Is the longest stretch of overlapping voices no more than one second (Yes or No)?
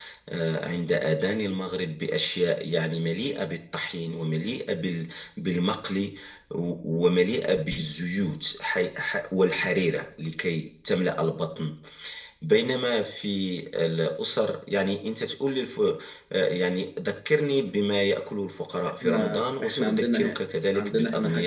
No